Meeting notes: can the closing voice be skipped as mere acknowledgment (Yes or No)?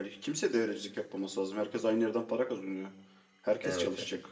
Yes